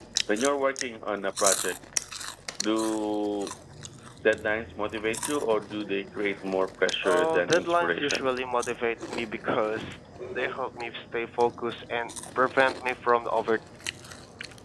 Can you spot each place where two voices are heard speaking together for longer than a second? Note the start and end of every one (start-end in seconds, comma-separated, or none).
7.0-8.4